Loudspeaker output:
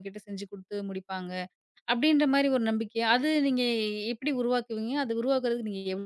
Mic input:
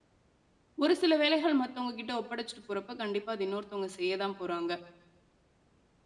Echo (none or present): none